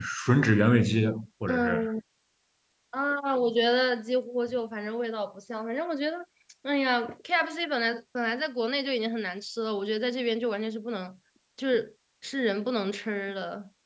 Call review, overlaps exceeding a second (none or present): none